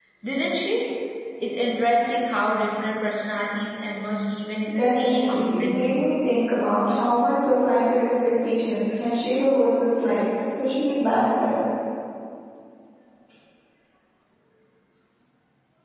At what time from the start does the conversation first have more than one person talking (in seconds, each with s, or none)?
4.7 s